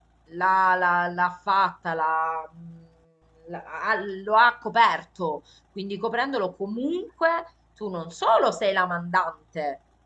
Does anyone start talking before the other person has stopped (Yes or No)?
No